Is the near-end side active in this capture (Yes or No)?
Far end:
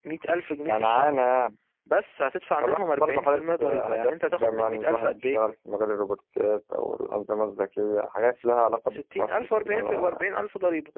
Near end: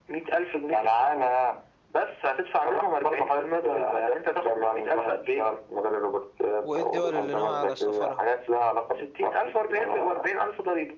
Yes